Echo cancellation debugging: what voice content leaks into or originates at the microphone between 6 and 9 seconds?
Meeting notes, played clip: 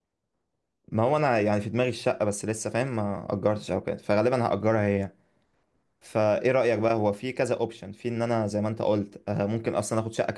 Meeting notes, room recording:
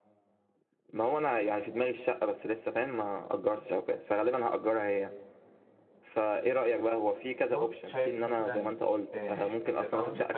both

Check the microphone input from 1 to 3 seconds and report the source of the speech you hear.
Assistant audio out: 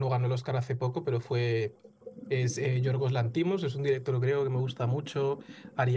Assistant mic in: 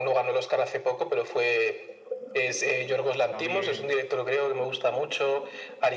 echo only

